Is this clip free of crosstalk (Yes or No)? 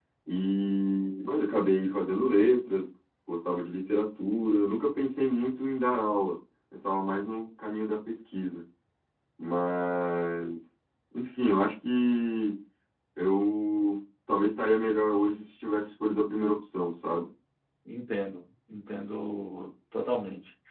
Yes